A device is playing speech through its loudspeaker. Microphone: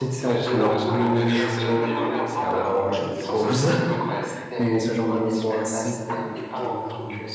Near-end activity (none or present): present